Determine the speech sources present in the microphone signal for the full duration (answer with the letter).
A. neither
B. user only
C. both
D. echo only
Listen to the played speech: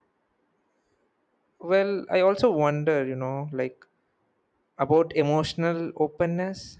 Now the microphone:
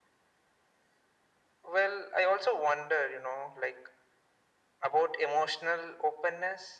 D